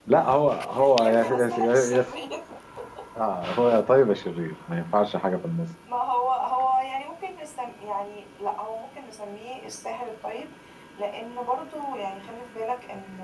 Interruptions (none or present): present